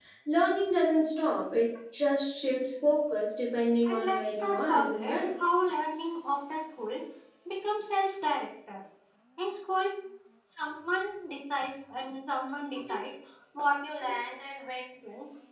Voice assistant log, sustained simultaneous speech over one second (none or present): present